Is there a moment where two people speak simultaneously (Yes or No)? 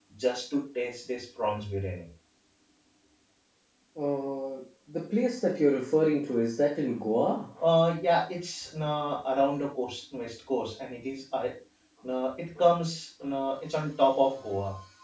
No